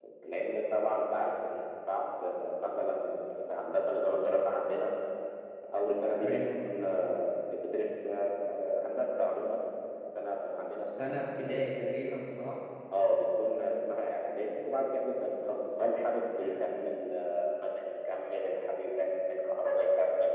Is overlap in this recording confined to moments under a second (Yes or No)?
Yes